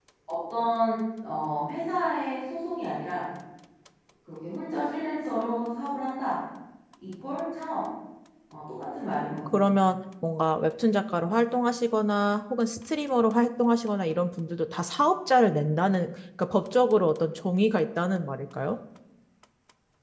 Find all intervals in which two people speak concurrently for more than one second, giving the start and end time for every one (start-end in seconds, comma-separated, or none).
none